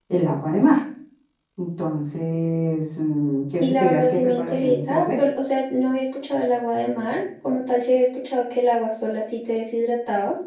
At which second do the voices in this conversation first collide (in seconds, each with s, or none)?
3.5 s